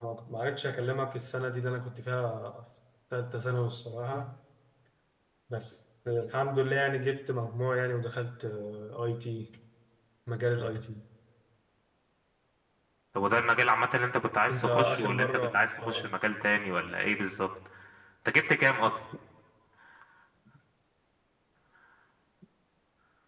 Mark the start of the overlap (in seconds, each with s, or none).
14.5 s